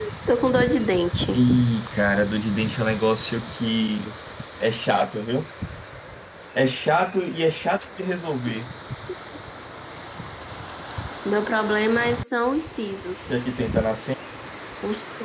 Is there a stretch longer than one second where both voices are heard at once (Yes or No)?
No